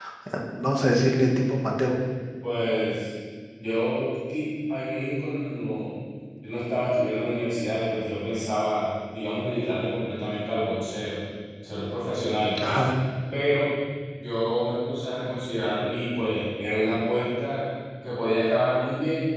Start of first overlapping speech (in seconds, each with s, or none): none